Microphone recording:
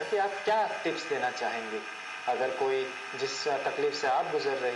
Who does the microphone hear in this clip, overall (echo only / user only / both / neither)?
echo only